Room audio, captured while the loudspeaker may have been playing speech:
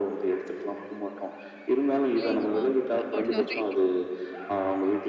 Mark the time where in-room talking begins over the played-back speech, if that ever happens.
2.0 s

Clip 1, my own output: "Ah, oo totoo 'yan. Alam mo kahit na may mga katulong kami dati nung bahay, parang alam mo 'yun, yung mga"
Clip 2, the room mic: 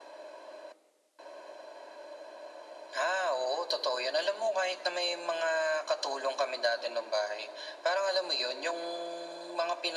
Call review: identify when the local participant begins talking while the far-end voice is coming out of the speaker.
none

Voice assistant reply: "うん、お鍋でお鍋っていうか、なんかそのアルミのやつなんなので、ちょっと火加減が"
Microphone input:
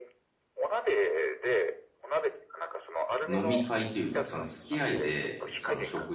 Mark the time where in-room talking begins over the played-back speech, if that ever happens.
3.2 s

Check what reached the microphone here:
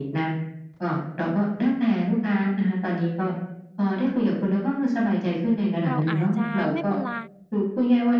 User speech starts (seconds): 5.9 s

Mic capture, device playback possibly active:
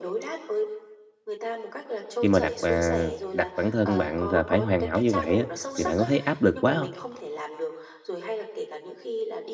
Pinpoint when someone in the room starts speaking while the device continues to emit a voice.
2.2 s

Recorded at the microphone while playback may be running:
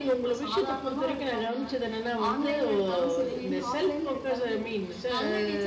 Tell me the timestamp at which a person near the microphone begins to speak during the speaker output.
none

